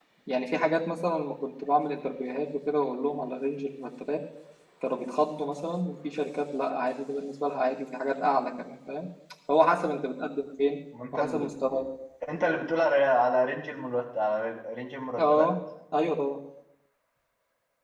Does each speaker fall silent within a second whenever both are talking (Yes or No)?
Yes